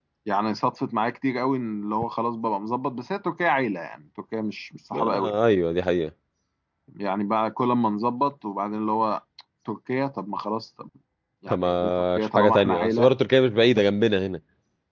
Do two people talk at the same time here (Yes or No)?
Yes